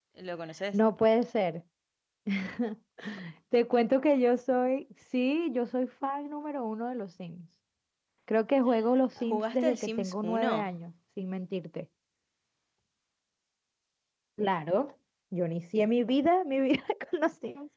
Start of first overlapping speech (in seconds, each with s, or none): 9.3 s